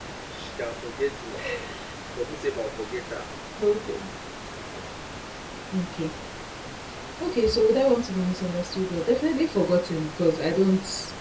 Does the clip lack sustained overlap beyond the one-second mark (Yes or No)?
Yes